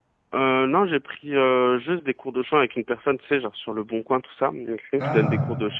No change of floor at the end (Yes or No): Yes